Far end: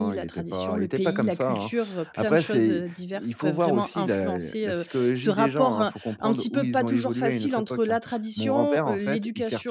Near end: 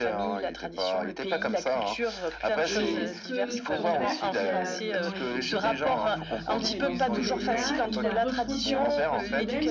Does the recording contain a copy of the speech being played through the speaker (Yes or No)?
Yes